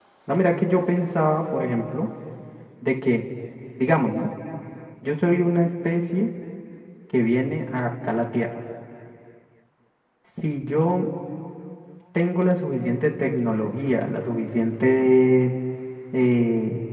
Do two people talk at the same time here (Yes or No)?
No